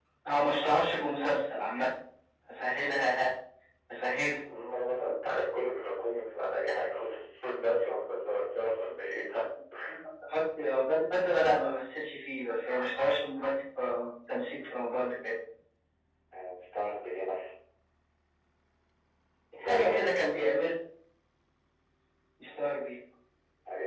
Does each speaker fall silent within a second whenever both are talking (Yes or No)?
Yes